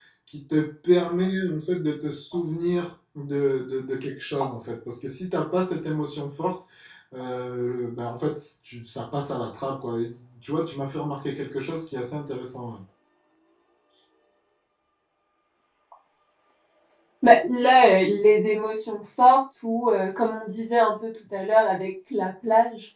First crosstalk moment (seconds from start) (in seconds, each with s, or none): none